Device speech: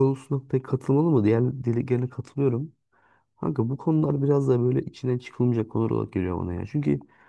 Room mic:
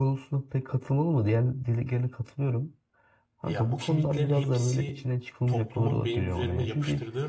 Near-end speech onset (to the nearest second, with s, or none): 3 s